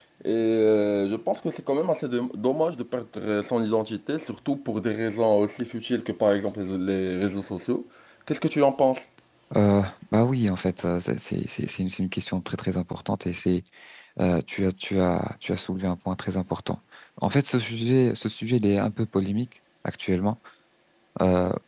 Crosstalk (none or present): none